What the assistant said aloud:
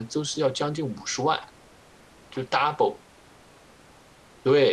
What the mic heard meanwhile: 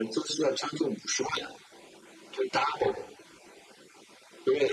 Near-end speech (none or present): none